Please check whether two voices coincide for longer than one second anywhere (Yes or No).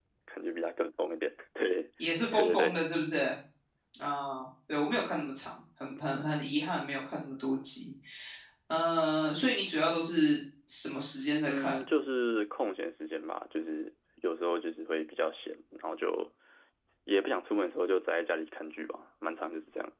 No